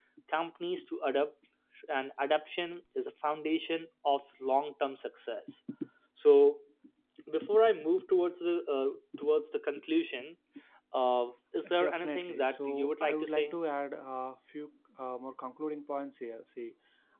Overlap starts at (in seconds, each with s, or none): 11.8 s